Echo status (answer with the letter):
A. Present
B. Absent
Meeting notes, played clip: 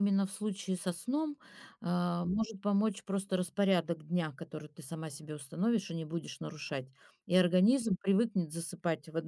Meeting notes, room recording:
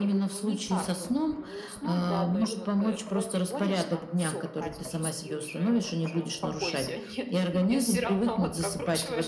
A